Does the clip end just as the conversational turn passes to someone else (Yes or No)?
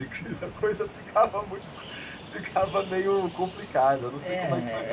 Yes